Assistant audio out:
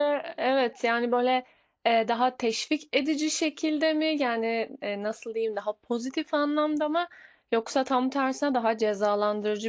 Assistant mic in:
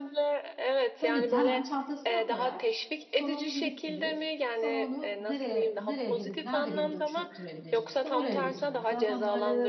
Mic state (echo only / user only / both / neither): both